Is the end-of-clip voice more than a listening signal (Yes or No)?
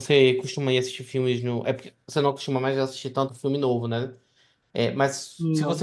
No